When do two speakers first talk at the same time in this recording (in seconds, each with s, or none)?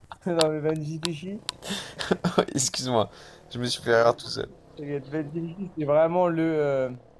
none